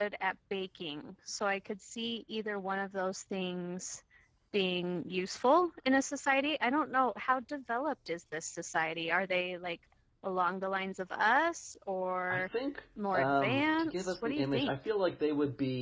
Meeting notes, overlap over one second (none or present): present